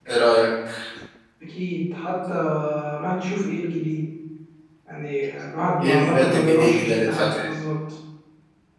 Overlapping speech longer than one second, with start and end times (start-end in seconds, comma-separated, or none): 5.8-7.5